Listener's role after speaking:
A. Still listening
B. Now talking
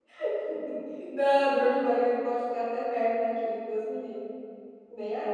B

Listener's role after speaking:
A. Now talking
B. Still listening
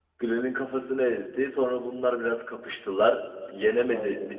B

